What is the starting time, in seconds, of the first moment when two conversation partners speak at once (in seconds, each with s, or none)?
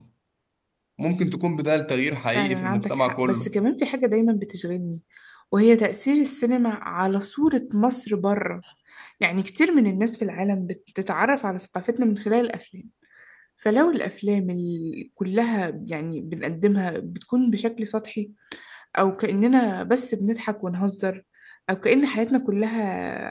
2.3 s